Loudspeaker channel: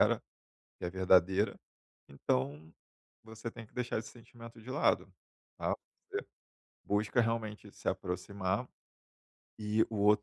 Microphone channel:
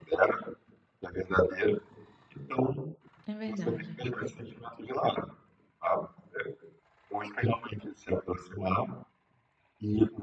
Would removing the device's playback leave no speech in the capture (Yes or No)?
No